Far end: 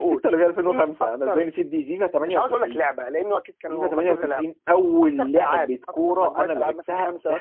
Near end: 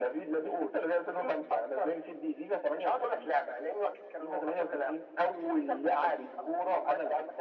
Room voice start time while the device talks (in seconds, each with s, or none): none